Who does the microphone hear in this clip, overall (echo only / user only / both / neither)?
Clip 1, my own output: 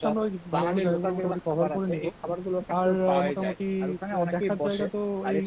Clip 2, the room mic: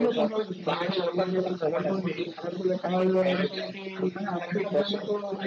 echo only